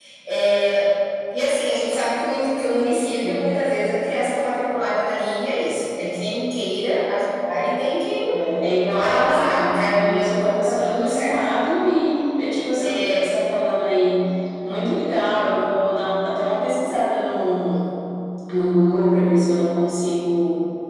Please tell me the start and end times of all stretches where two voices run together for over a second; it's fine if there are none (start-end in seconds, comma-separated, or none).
8.9-11.4